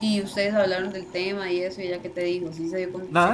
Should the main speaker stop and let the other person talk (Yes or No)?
Yes